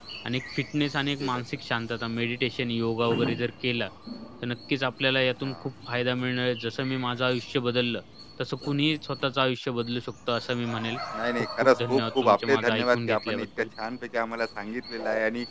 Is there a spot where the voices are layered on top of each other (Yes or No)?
Yes